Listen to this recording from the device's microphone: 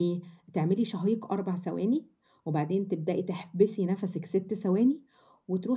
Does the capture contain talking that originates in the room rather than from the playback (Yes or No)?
Yes